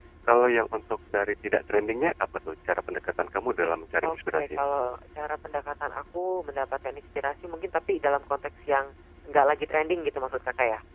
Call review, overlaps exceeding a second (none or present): none